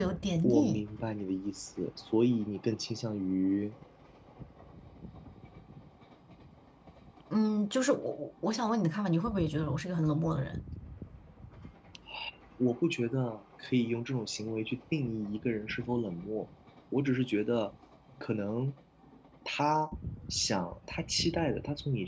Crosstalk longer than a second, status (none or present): none